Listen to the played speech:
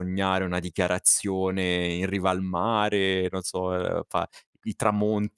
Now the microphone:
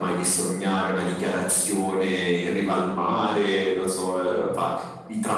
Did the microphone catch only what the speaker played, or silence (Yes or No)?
Yes